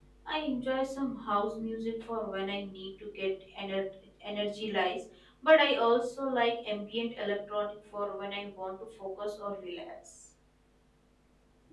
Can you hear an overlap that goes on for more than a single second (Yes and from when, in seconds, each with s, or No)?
No